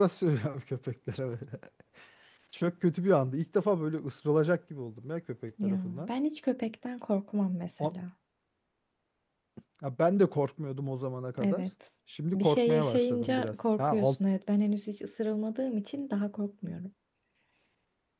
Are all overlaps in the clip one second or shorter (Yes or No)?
No